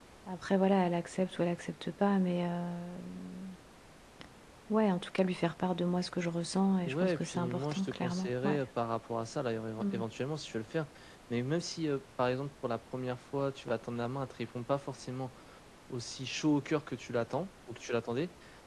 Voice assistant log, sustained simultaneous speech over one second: present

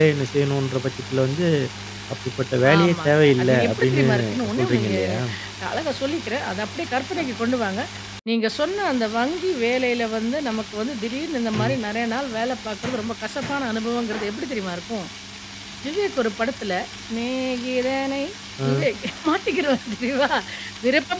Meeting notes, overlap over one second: present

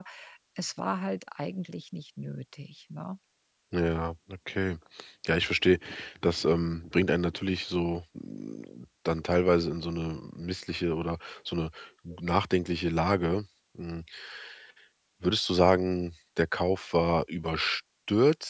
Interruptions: none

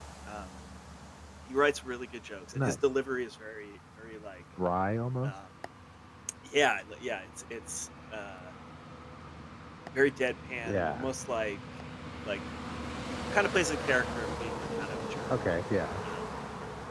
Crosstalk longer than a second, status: none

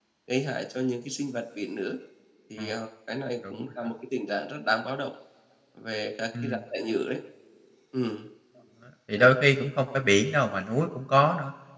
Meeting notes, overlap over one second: none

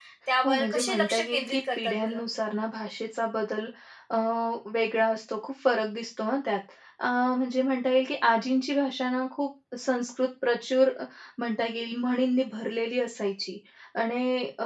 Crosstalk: present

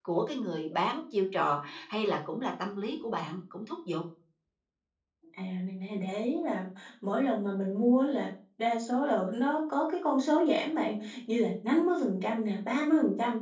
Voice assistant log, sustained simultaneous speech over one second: none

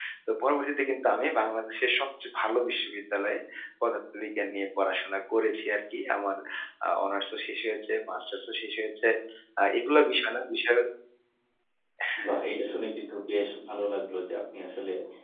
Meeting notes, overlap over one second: none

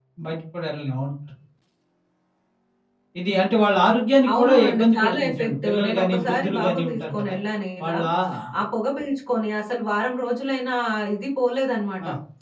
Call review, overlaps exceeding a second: present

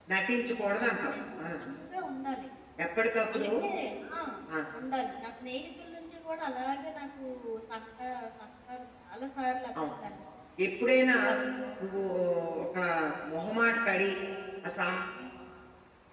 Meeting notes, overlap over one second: none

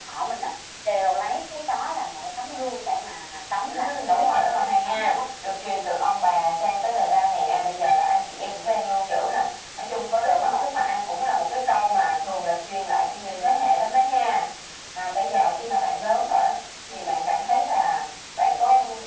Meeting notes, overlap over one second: present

